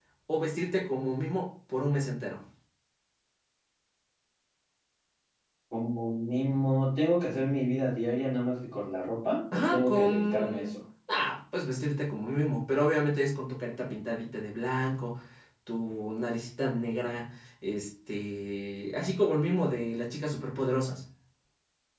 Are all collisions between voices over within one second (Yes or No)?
No